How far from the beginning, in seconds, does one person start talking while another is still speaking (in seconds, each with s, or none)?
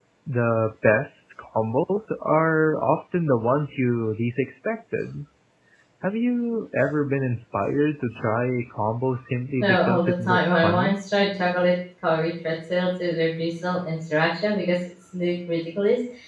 9.6 s